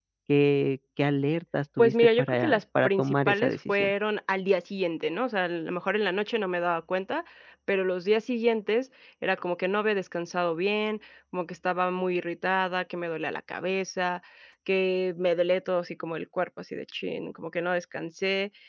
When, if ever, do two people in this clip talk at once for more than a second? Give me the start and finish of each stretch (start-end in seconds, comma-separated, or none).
1.8-3.9